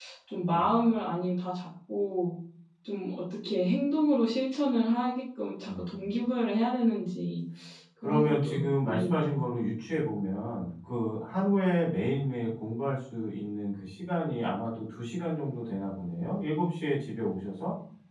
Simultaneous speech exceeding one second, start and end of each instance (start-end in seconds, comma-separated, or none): 8.0-9.4